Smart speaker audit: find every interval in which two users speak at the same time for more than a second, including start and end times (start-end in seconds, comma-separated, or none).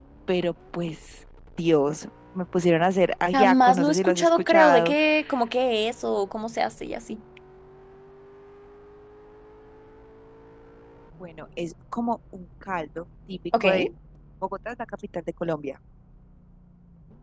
3.3-5.0